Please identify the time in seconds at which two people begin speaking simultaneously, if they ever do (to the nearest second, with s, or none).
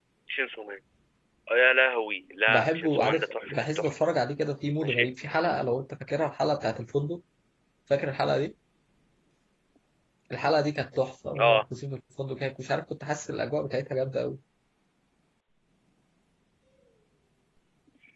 2 s